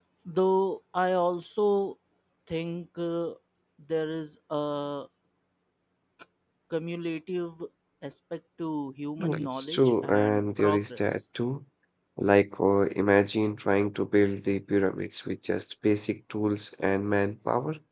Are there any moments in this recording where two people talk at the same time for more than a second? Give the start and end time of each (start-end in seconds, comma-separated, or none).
9.2-11.2